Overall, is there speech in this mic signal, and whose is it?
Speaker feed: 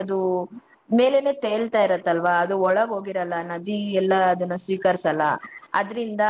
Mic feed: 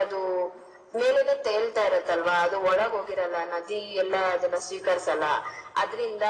echo only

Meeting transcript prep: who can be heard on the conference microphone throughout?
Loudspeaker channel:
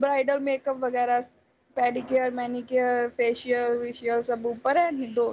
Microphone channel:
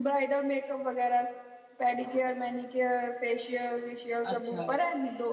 both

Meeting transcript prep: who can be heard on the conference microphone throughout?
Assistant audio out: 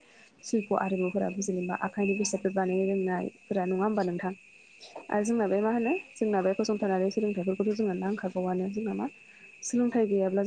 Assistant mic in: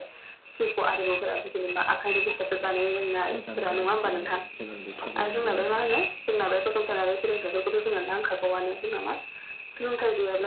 both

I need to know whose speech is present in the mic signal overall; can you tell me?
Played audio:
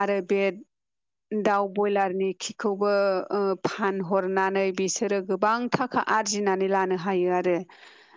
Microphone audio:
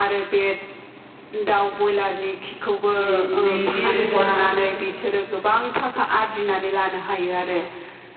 both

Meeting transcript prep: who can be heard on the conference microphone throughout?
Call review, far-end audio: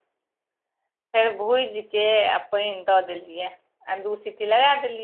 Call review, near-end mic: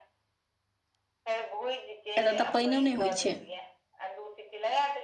both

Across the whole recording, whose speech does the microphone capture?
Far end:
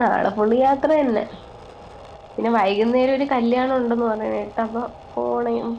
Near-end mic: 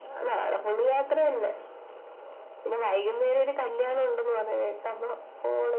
echo only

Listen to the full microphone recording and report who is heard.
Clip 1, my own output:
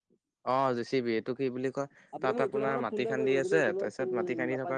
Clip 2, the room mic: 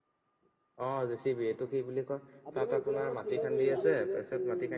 both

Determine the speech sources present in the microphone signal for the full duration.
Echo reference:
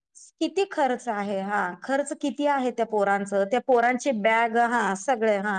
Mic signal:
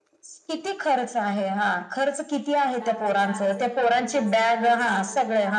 both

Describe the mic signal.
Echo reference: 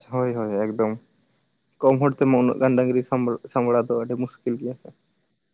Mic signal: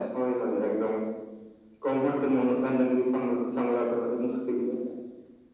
echo only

